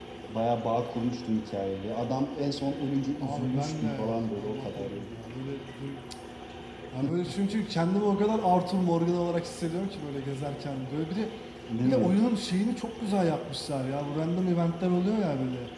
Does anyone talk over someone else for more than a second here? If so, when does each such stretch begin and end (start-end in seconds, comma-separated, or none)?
3.2-5.1